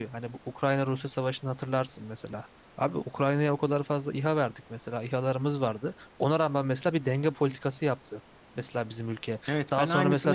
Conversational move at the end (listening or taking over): taking over